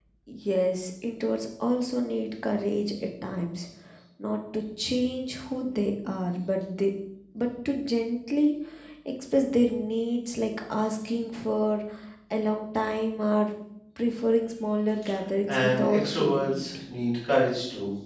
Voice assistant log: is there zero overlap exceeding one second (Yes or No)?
No